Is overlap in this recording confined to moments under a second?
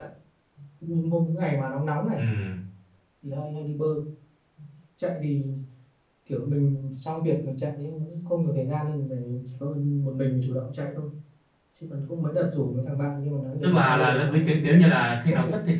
No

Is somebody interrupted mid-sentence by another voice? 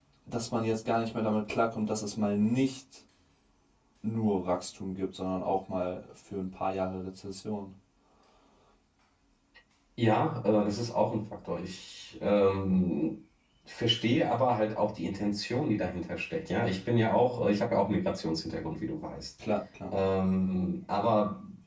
No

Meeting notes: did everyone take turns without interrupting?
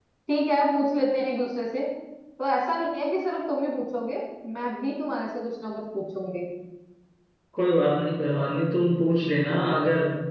Yes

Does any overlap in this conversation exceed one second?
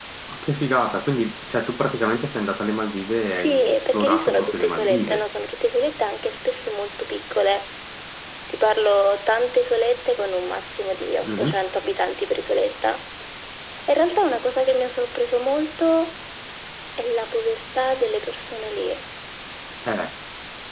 Yes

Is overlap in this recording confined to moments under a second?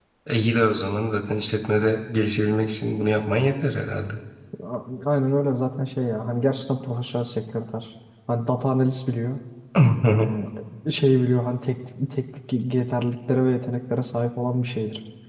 Yes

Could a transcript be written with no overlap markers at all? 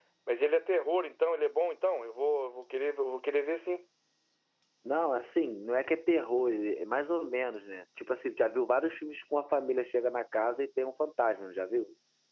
Yes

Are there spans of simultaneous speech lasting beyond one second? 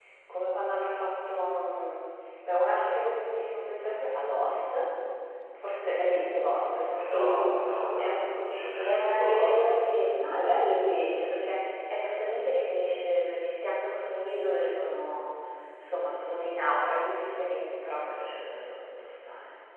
Yes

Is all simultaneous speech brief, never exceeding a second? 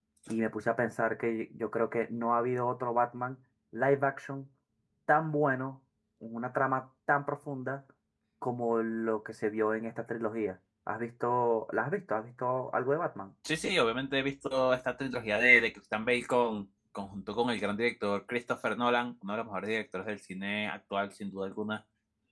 Yes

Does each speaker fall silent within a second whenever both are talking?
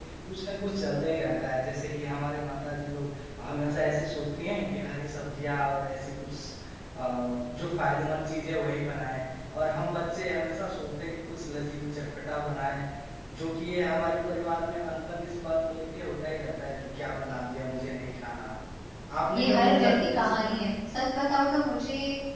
No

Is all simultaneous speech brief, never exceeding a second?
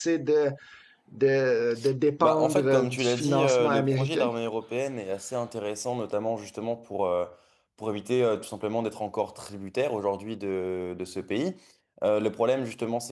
No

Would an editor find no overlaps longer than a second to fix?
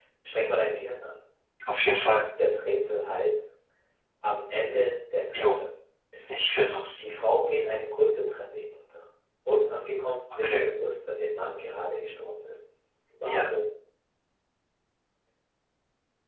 Yes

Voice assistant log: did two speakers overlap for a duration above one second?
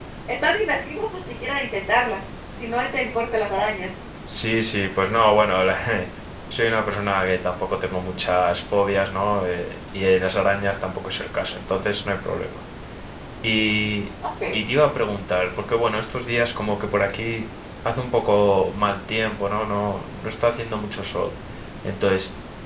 No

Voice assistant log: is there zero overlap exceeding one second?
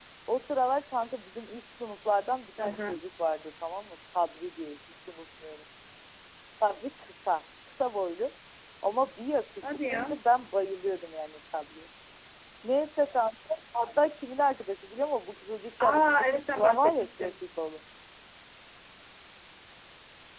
No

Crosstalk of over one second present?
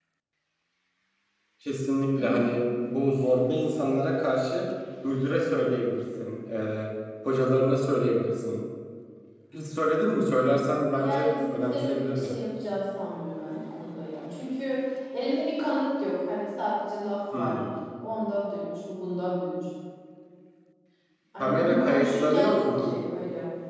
Yes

